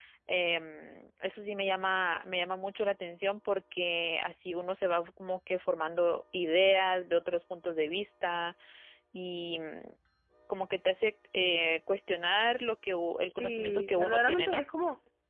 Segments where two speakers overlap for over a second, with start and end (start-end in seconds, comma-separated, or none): 13.4-14.6